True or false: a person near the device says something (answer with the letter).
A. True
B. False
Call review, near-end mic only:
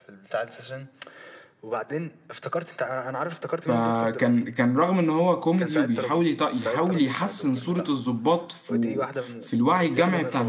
A